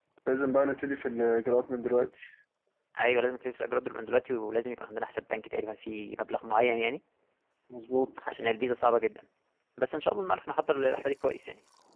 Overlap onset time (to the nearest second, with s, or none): none